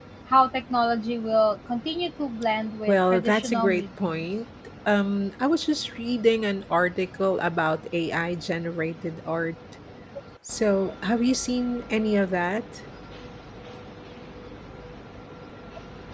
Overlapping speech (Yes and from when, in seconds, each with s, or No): Yes, from 2.9 s